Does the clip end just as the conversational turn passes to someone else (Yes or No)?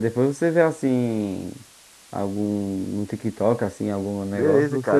Yes